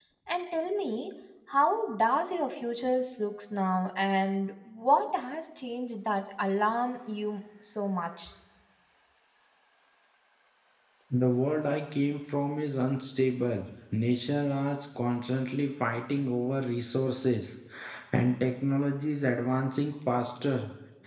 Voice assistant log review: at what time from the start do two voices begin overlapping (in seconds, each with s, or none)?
none